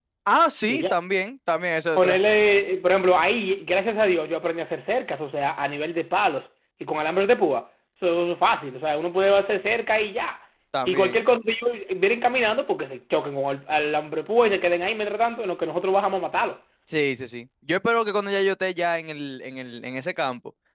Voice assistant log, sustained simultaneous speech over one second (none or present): none